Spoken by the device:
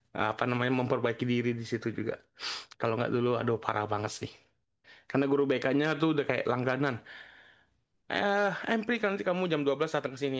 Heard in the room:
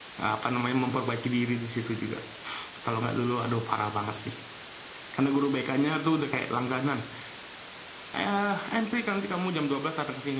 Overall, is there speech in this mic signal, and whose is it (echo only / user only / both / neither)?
echo only